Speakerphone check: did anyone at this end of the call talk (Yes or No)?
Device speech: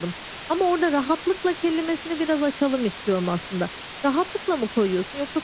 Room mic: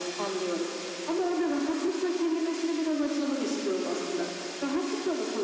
No